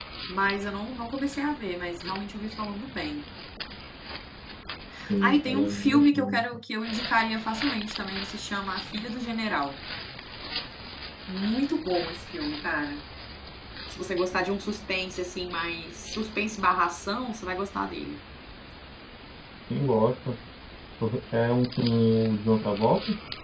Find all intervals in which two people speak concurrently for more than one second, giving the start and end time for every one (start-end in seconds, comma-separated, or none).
5.2-6.4